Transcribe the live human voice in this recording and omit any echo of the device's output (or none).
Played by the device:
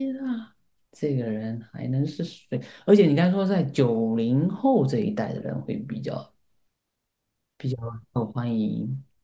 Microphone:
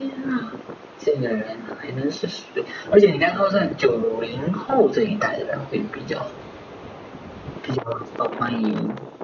none